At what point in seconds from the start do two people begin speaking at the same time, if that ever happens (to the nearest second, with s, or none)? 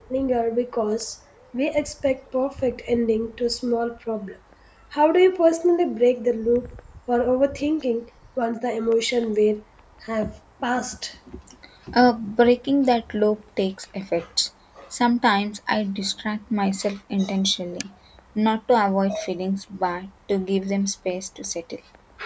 none